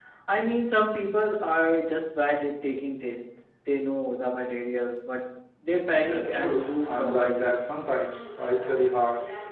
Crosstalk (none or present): present